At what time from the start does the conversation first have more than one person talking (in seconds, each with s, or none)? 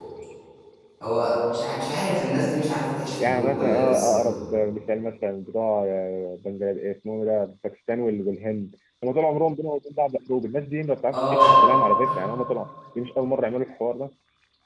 3.2 s